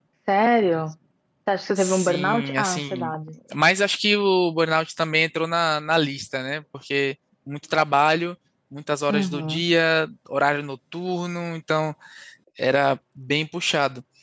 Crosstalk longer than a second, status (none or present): present